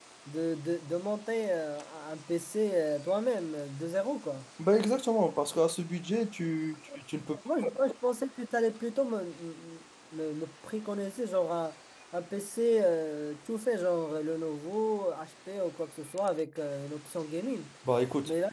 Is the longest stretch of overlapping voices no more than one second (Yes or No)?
Yes